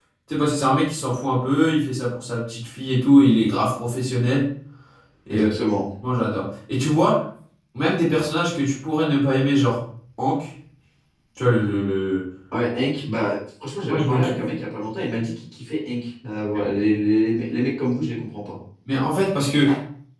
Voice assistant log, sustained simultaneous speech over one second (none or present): none